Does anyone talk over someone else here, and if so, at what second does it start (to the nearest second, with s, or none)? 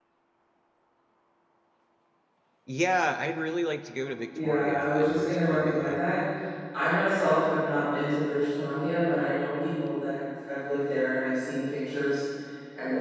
4 s